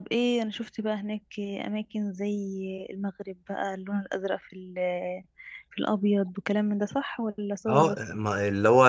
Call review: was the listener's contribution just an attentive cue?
No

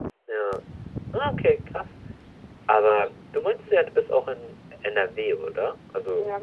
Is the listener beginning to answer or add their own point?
Yes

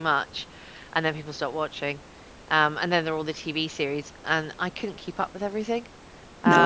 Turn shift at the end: Yes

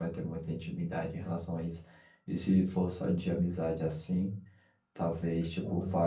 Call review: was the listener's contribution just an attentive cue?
Yes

